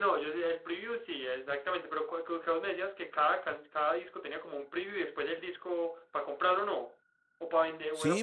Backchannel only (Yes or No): No